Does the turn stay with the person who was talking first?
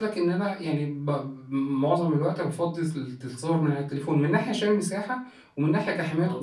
Yes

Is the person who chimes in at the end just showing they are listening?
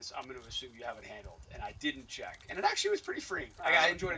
Yes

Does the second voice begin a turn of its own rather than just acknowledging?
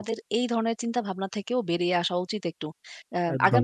No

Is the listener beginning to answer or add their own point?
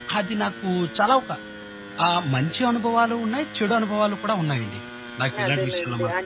Yes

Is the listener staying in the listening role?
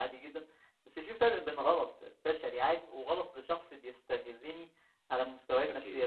Yes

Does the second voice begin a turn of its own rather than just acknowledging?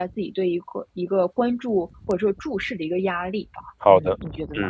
Yes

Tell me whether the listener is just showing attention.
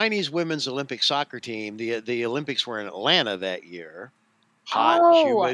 No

